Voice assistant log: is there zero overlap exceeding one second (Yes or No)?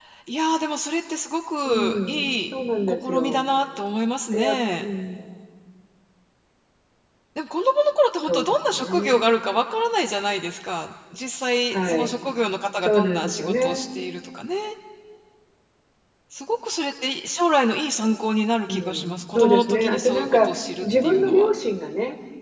No